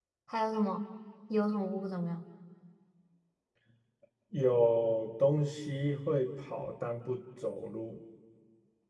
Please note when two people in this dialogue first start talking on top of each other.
none

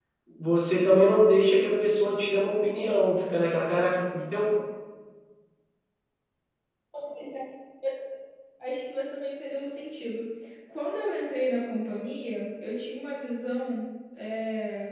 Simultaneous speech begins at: none

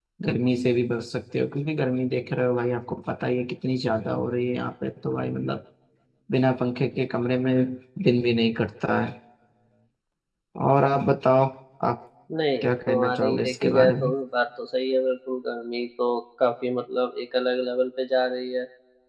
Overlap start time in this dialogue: 12.6 s

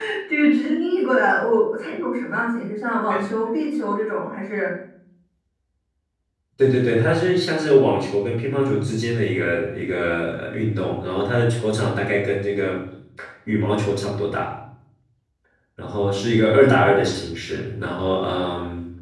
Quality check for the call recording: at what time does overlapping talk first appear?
none

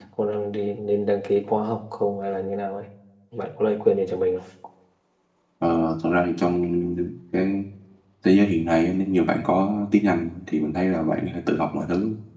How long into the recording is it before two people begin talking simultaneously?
none

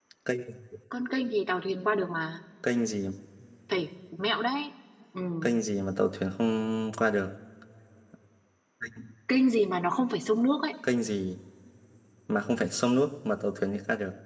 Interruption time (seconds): none

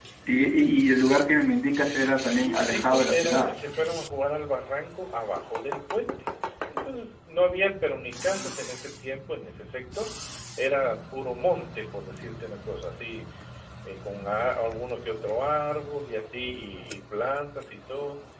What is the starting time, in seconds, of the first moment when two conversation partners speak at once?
2.3 s

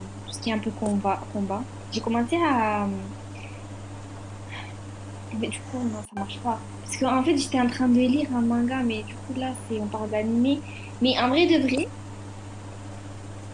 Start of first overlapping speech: none

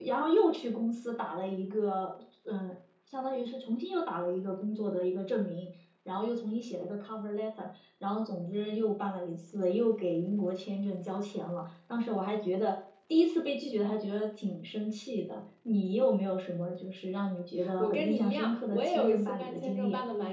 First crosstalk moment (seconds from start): 17.6 s

